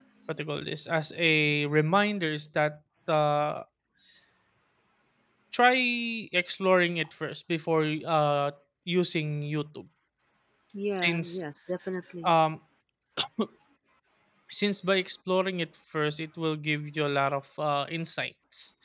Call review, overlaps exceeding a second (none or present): none